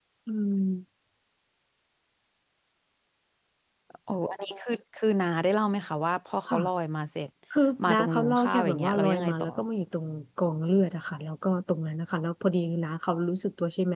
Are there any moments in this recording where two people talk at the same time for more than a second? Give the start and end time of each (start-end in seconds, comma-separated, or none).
7.9-9.5